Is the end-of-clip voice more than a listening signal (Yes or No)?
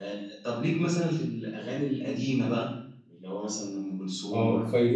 Yes